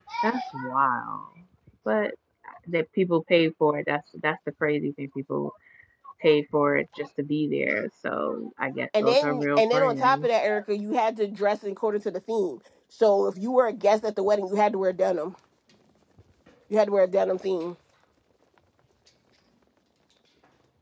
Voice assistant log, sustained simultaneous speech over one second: present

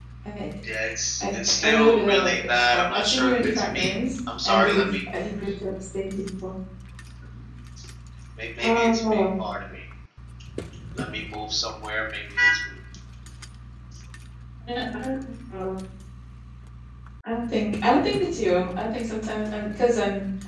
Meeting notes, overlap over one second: present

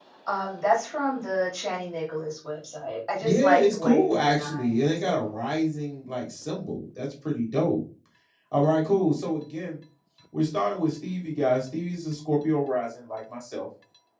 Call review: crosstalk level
present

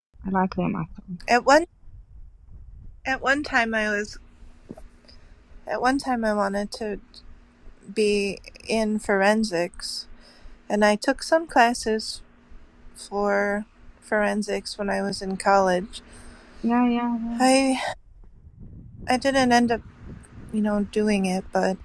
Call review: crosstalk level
none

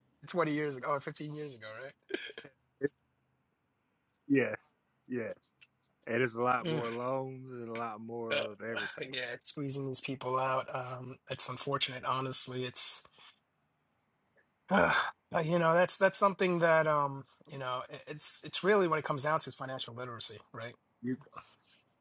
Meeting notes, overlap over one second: none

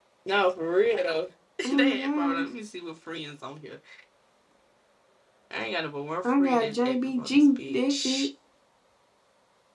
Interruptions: present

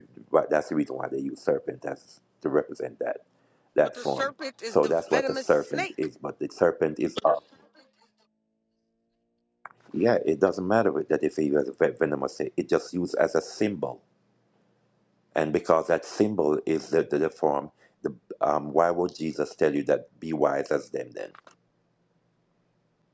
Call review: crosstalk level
present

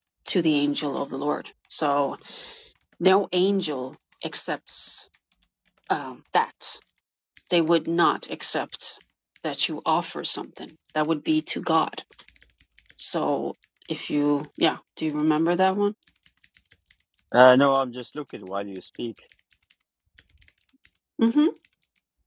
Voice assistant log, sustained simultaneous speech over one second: none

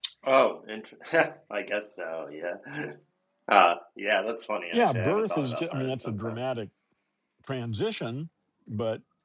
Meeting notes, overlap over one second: present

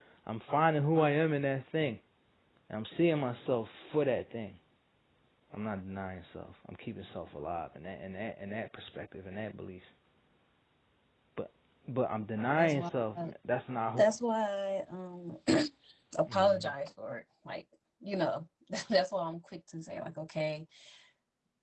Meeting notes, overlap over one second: none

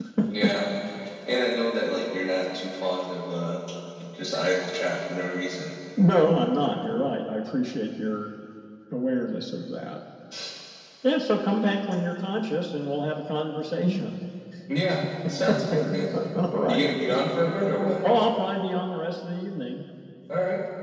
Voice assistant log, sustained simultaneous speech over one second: none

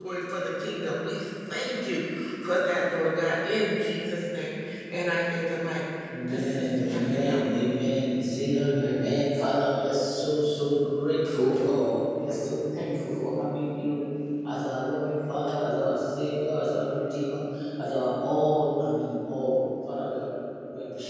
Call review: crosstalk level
present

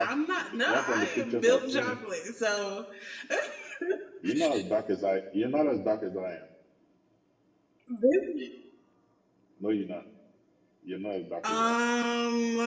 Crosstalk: present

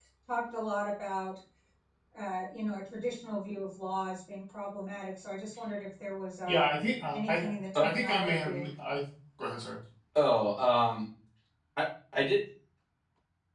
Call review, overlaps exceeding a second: present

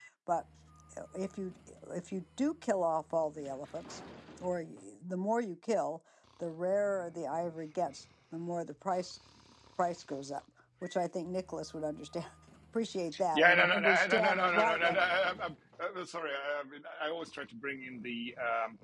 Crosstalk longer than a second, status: present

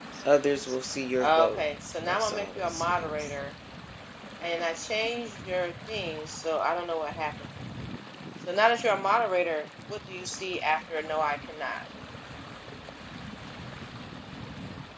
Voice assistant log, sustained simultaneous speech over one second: present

